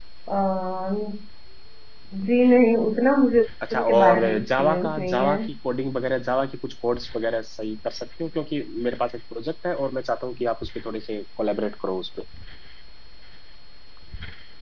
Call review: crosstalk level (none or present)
present